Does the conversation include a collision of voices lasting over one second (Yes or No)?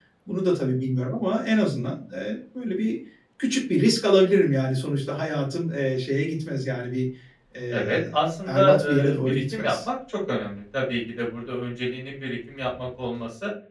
Yes